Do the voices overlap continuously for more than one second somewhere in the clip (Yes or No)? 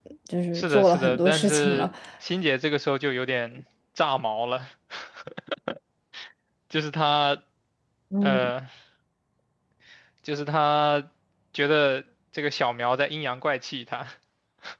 Yes